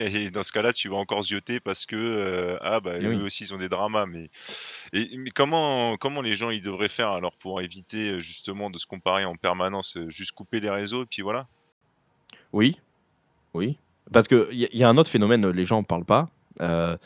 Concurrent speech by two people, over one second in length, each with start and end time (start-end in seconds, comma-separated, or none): none